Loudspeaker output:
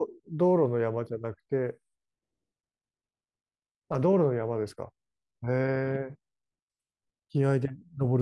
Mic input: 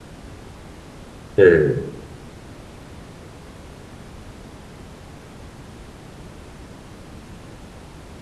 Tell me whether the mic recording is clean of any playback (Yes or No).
Yes